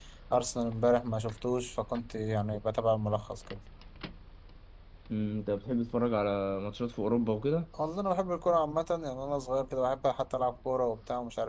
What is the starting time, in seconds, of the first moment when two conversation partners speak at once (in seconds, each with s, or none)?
none